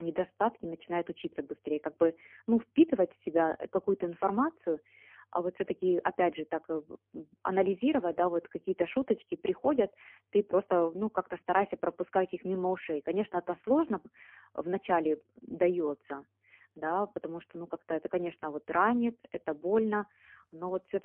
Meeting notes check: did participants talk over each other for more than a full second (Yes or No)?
No